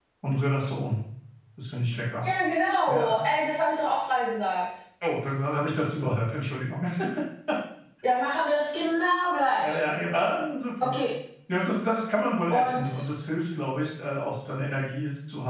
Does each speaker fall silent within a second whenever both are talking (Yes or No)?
Yes